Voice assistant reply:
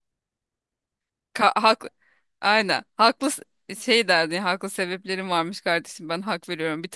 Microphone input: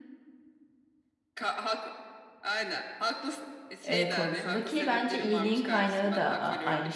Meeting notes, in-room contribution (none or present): present